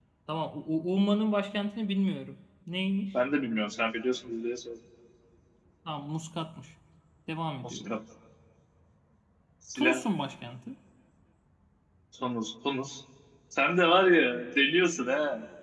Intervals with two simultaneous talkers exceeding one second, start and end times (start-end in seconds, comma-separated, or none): none